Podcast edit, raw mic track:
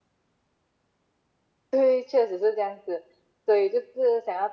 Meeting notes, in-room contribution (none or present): none